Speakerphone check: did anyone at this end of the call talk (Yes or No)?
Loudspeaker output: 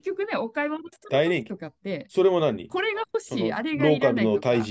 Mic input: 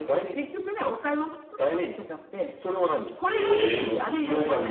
Yes